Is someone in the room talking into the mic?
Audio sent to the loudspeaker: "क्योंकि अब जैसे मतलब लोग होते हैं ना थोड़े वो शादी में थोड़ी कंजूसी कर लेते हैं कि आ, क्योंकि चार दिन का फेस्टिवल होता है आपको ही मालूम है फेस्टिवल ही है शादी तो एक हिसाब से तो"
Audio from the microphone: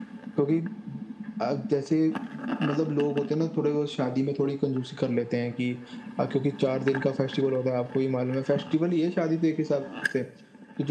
No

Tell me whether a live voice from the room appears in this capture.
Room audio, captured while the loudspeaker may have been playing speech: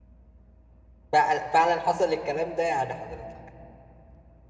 Yes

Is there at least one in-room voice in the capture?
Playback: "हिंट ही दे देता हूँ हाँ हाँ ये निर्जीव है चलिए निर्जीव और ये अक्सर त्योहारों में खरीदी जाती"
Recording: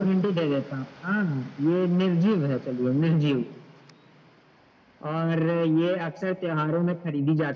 No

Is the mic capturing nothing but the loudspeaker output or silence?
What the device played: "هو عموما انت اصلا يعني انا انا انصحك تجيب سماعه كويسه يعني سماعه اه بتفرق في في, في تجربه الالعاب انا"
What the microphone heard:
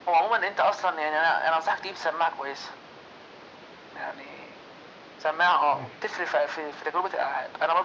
No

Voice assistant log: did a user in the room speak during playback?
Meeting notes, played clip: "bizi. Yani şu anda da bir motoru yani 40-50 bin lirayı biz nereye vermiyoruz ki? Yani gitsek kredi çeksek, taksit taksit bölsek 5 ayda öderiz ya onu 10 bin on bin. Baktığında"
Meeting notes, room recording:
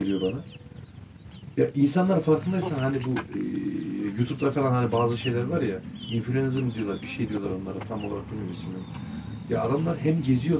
Yes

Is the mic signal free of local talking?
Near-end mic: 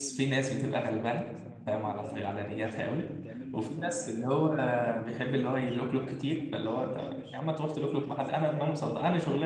No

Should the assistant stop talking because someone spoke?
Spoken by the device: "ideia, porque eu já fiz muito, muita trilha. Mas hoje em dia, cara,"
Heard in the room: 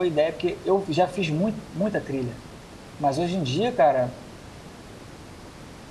No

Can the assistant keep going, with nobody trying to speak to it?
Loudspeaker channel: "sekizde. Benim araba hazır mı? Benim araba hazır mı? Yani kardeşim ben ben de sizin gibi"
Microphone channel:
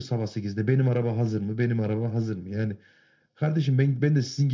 Yes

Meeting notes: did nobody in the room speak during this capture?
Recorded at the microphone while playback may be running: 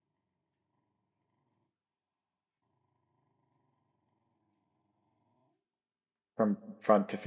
No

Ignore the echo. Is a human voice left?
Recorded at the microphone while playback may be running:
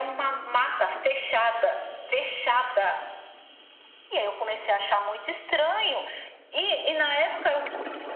No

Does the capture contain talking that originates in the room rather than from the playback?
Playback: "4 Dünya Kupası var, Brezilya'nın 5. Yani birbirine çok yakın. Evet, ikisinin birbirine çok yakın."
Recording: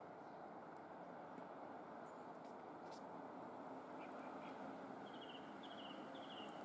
No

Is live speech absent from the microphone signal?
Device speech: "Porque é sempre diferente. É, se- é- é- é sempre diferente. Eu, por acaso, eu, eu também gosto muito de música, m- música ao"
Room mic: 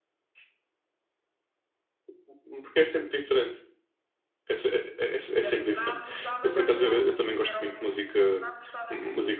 No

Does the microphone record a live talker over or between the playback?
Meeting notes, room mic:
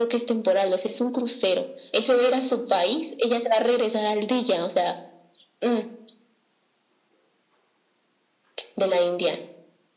No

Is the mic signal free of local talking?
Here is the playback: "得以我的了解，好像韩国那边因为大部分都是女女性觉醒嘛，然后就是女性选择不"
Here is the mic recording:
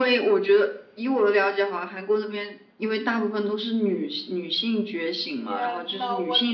No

